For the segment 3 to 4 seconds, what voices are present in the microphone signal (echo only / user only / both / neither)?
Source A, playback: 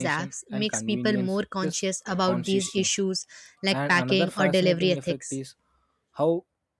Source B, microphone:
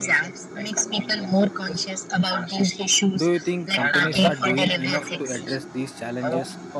both